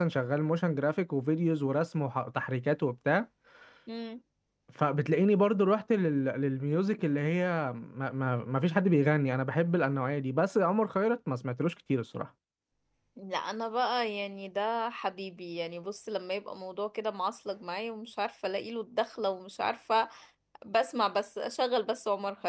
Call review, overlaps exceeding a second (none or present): none